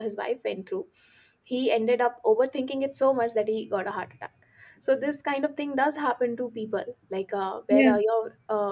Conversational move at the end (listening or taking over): listening